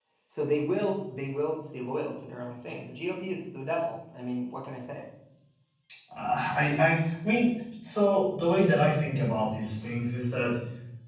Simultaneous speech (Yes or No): No